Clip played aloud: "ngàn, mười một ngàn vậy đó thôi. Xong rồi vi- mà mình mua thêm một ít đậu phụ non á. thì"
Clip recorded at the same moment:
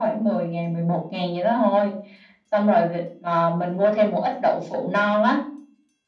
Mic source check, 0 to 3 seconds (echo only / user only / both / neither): echo only